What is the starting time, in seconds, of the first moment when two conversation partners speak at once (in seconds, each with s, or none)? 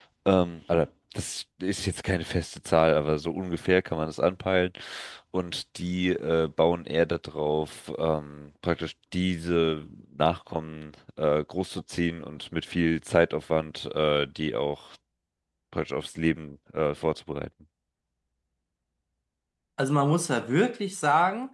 none